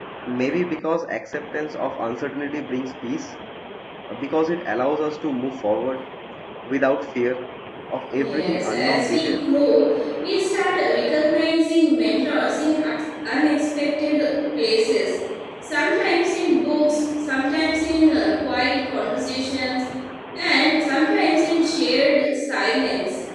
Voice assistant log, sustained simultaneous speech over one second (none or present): present